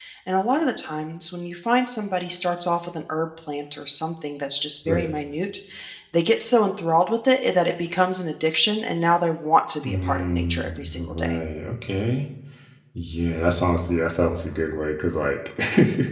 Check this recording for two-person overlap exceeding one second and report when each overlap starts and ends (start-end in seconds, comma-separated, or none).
9.8-11.4